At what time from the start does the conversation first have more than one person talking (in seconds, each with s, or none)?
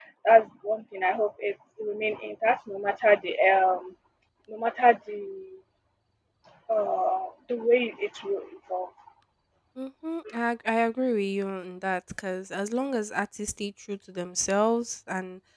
none